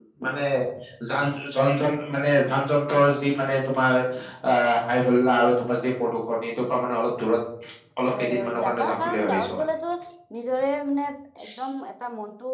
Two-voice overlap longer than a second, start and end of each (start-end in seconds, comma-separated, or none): 8.1-9.6